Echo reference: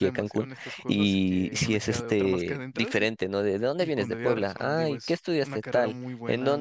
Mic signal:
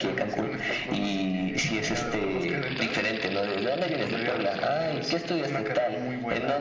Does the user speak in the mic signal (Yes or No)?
No